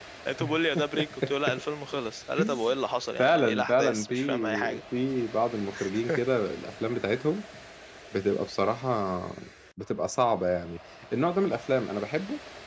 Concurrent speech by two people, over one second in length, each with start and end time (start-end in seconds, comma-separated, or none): 3.2-4.8